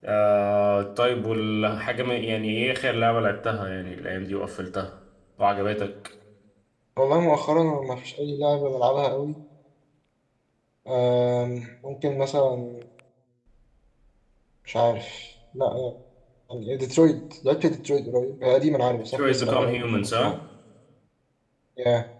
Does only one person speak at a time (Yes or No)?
No